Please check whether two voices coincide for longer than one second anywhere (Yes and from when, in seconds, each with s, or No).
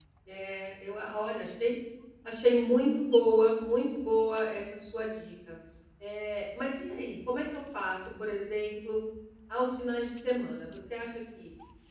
No